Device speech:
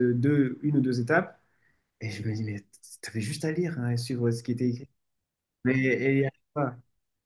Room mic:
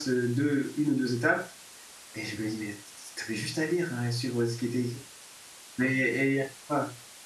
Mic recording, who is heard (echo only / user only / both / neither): echo only